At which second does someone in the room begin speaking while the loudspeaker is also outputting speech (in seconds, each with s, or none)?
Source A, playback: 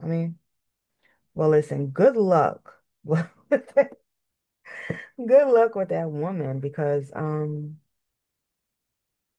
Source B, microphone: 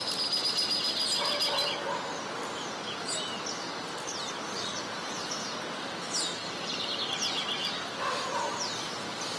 none